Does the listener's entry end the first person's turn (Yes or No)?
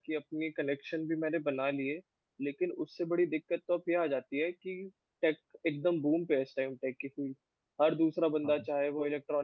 No